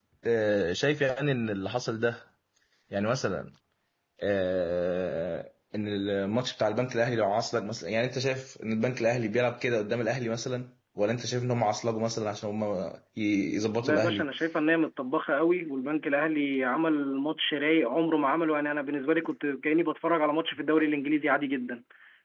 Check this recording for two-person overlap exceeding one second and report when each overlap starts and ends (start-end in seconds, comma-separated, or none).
none